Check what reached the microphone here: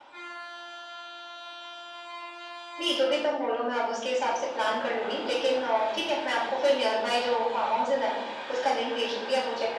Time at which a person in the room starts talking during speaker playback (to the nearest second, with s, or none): none